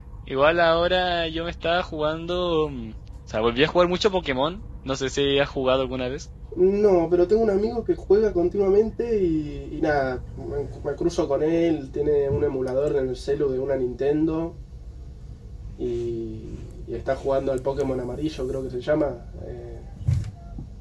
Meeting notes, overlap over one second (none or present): none